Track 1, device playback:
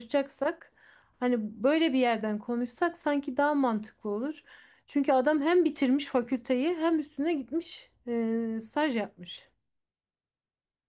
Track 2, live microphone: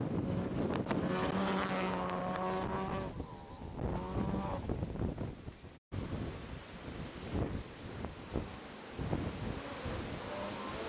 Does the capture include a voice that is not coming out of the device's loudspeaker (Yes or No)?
No